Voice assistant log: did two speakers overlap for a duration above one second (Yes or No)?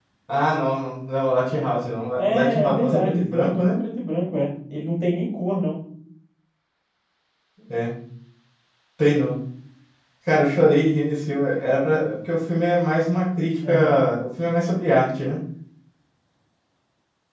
Yes